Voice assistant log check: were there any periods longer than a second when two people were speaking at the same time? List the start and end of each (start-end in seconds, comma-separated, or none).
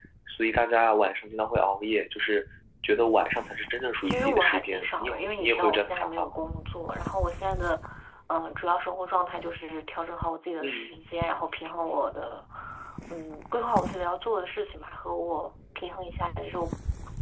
4.0-6.3